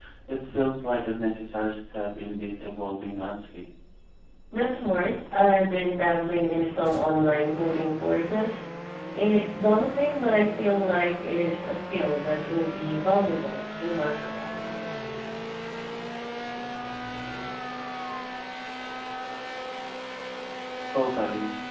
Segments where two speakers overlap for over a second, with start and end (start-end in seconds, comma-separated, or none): none